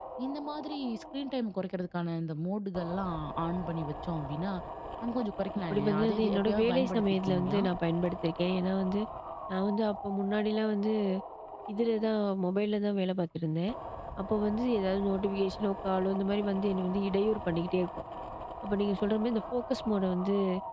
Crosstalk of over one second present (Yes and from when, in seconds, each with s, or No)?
Yes, from 5.7 s